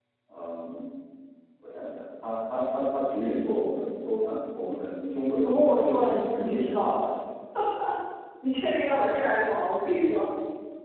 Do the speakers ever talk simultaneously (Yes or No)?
Yes